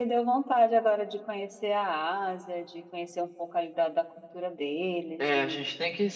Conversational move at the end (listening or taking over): taking over